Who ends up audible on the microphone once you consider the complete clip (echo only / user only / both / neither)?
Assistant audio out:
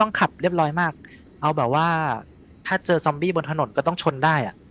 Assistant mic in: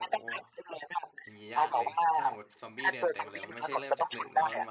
both